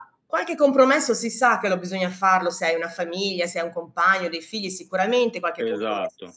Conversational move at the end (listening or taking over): listening